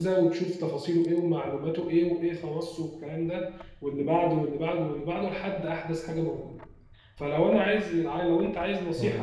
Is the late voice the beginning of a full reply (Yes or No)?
No